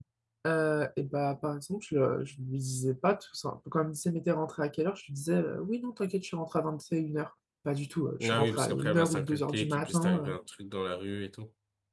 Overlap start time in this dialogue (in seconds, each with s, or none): 8.2 s